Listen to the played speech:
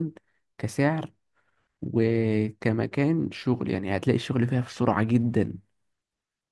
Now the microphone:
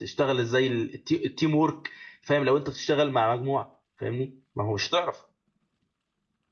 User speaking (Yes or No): Yes